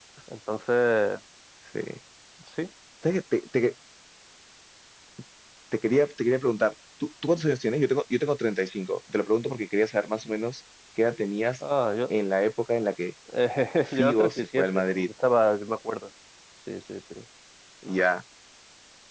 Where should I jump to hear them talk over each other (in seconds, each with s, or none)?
13.8 s